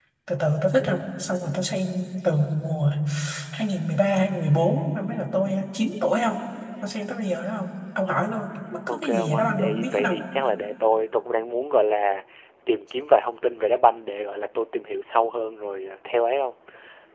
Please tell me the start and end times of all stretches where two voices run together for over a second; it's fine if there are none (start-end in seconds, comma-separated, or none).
8.9-10.2